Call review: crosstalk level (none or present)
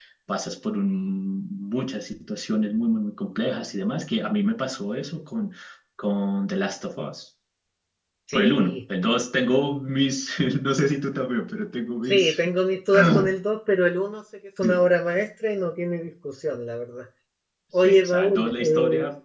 present